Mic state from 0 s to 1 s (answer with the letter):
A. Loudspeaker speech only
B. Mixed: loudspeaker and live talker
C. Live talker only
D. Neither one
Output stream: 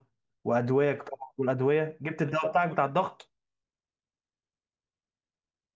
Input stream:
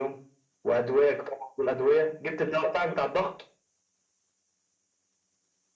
A